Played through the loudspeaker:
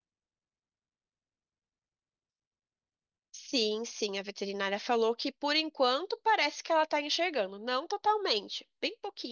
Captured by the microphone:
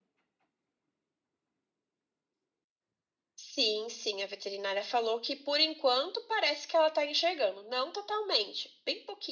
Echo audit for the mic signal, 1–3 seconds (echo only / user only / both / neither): neither